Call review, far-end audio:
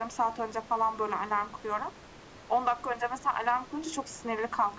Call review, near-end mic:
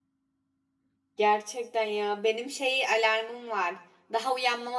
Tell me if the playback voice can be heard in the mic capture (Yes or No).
No